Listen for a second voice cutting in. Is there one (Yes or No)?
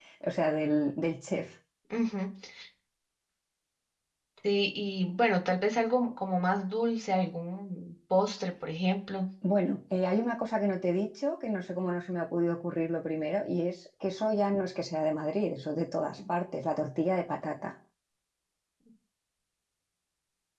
No